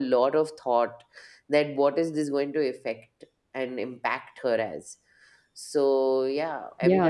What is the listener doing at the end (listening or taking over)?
taking over